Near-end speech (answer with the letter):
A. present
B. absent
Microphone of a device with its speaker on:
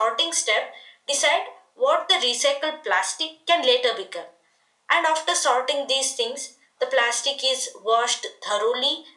B